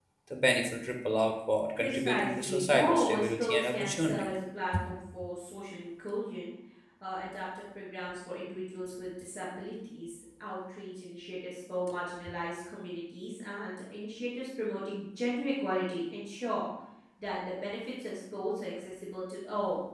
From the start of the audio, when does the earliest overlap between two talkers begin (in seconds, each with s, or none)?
1.8 s